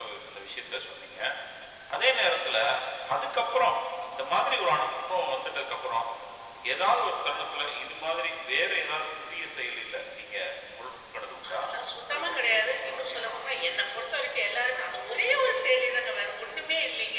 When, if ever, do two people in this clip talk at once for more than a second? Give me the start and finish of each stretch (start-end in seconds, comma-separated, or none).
12.1-13.3